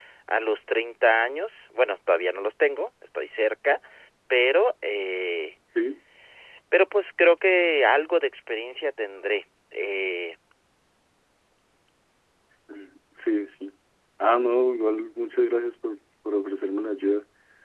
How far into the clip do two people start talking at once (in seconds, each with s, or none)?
none